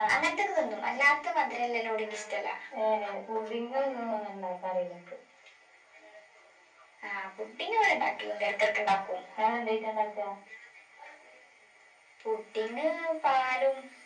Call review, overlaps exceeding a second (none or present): none